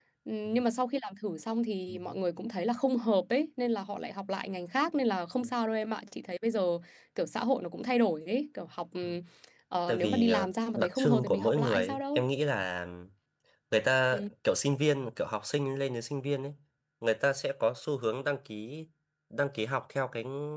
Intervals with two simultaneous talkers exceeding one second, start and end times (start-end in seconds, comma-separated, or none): 9.9-12.2